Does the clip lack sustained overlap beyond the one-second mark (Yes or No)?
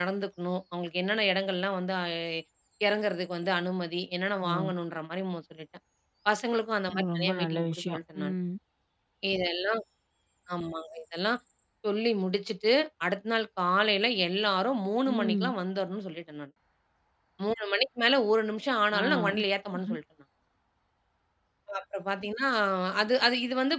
No